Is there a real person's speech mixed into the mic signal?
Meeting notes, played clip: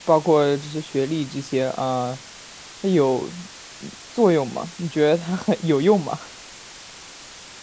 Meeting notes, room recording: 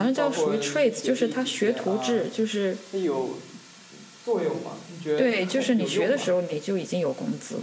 Yes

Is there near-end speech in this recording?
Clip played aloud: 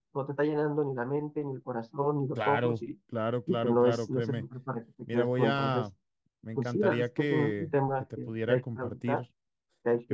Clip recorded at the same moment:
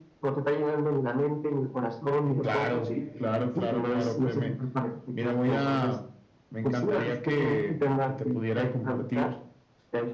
Yes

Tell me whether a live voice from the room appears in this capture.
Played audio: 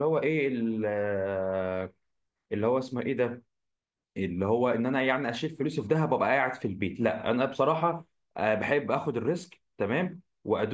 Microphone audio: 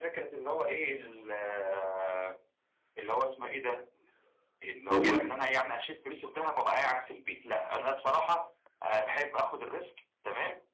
Yes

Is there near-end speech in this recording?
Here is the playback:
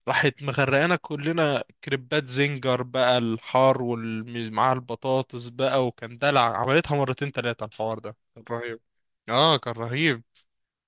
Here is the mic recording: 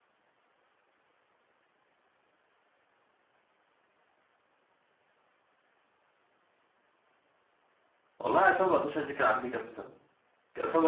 Yes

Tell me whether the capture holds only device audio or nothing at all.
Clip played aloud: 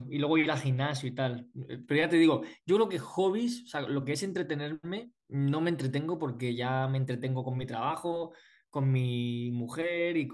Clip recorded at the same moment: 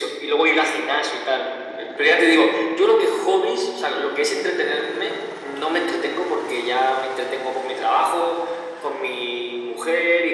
Yes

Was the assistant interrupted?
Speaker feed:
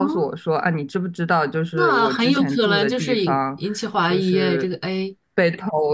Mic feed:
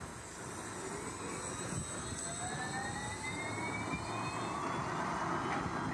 No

